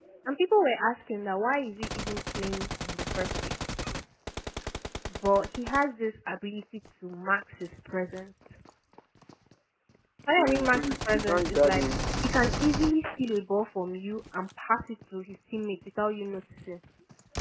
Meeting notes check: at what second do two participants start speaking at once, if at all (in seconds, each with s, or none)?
10.4 s